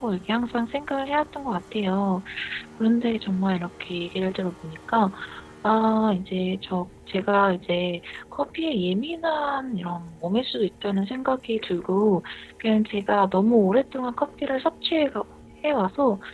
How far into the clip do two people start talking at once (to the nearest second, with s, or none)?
none